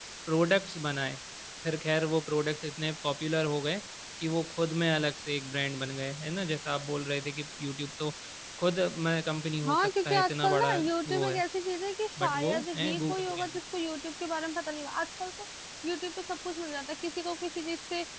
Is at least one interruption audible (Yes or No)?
Yes